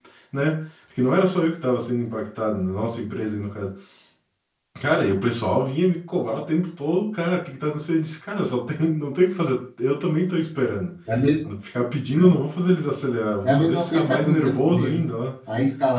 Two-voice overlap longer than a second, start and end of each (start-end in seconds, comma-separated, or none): 13.4-15.0